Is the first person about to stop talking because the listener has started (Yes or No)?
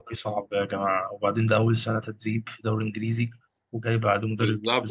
Yes